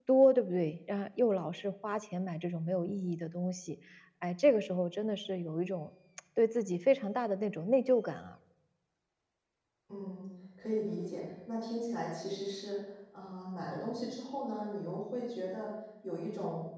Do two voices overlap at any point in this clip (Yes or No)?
No